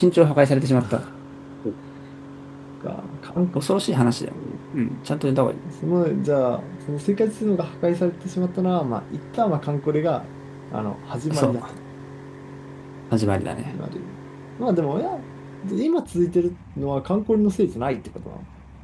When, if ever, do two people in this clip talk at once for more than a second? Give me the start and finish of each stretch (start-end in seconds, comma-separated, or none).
none